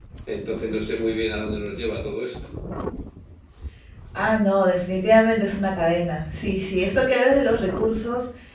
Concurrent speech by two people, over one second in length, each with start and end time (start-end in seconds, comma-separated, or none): none